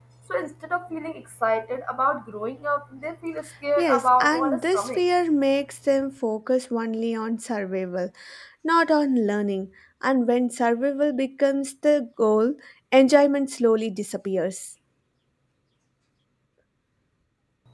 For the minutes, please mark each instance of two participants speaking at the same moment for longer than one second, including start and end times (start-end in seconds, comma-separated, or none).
3.8-5.0